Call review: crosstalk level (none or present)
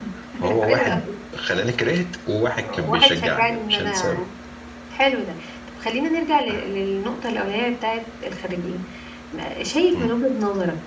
present